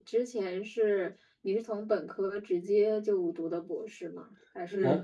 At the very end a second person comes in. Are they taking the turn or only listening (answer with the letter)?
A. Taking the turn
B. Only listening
B